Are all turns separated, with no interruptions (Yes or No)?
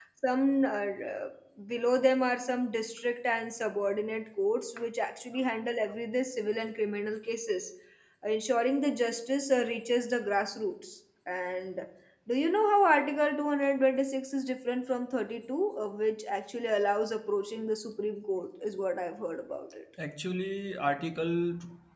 Yes